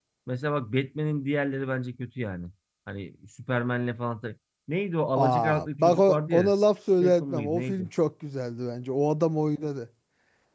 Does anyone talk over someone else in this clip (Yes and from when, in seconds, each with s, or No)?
Yes, from 5.2 s